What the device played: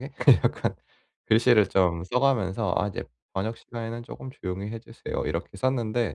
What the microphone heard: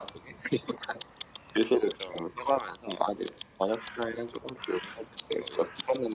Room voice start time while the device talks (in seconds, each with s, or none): none